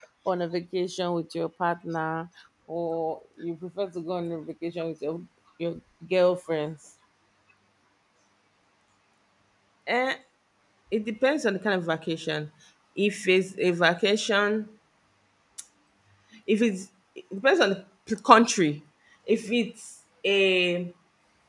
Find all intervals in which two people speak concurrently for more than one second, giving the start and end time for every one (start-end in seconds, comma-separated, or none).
none